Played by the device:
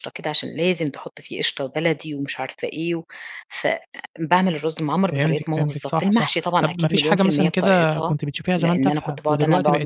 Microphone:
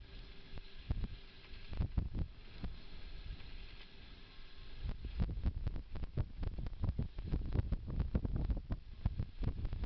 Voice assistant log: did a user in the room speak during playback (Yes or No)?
No